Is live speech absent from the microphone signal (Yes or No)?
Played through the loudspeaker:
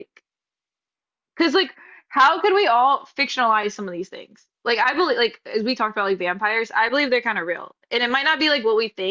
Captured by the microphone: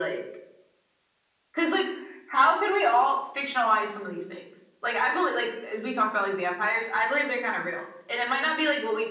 Yes